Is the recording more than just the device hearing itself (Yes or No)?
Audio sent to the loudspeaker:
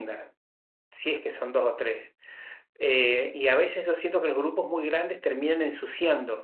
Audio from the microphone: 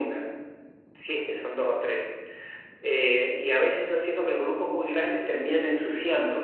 No